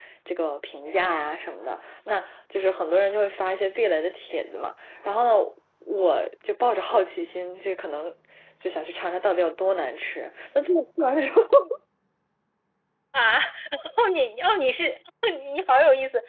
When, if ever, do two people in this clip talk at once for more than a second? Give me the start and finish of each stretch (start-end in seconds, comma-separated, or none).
none